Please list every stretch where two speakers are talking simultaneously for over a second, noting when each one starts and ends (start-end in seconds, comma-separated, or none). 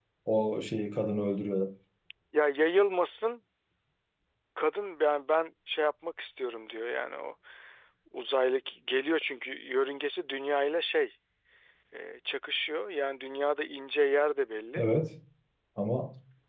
none